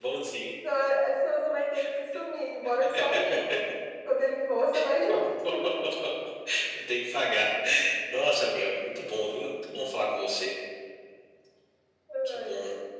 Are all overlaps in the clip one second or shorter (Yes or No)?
Yes